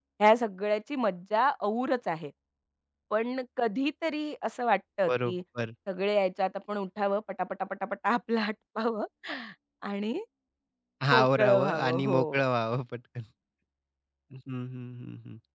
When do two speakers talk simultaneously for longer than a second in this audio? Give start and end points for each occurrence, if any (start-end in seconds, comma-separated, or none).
11.2-12.4